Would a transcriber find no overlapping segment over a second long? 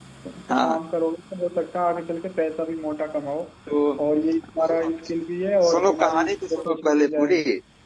No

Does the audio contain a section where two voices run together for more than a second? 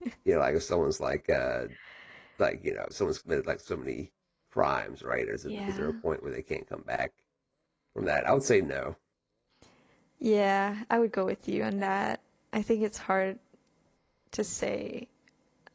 No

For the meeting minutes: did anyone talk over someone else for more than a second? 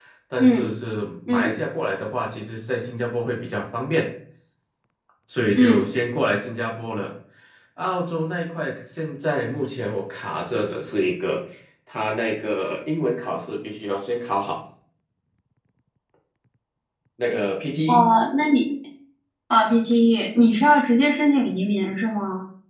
No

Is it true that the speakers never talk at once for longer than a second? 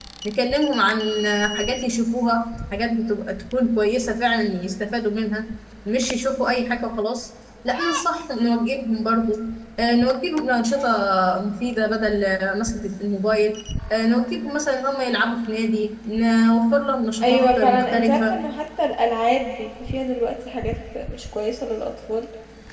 No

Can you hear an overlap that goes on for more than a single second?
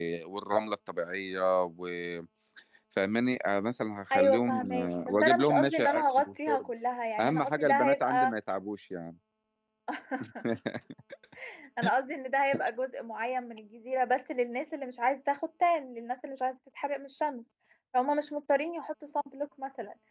Yes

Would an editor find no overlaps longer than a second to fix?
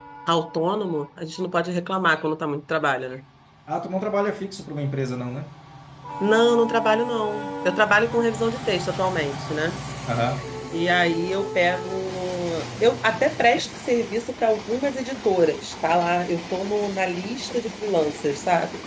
Yes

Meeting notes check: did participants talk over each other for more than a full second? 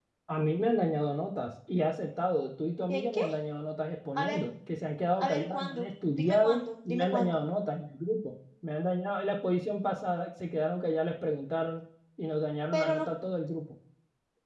Yes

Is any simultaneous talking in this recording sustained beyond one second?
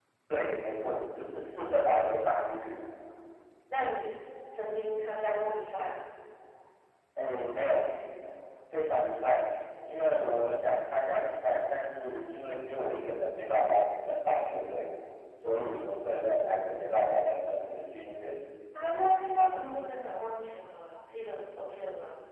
No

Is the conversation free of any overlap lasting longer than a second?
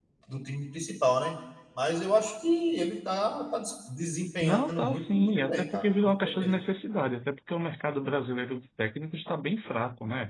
No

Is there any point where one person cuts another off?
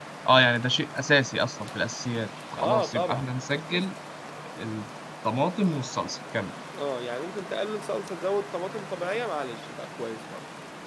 Yes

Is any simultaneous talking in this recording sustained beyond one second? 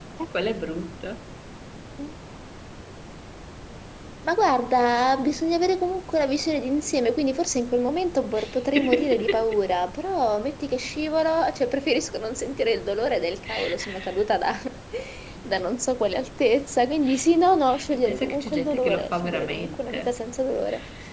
Yes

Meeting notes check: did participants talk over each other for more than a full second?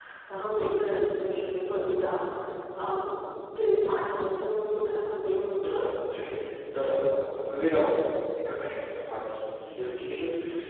No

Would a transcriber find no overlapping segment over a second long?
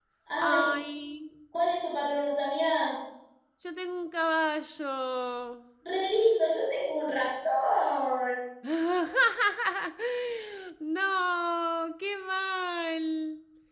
Yes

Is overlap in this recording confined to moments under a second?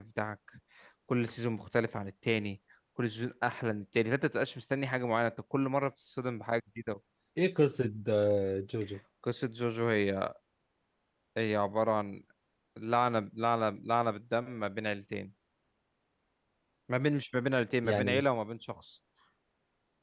Yes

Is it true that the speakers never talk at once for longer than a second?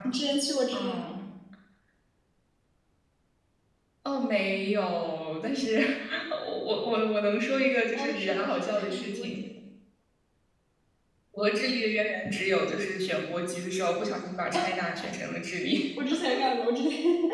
No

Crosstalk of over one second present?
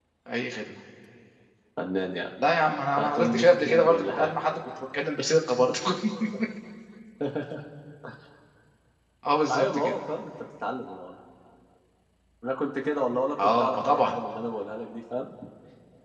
Yes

